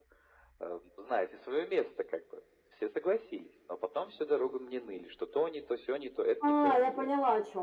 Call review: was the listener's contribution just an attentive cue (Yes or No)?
No